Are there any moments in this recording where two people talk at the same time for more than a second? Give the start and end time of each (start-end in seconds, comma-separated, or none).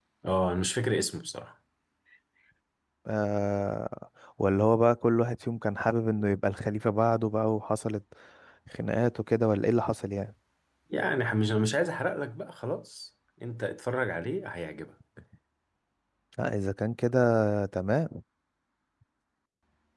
none